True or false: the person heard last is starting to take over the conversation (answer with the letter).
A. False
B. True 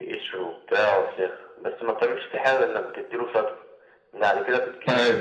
A